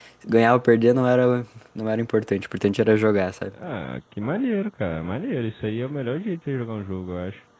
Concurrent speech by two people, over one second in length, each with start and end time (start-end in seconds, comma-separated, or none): none